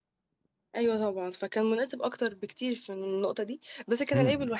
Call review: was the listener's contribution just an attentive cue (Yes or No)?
Yes